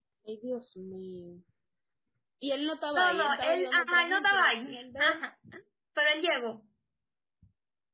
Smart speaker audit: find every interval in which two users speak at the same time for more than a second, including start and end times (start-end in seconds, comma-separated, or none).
3.0-5.2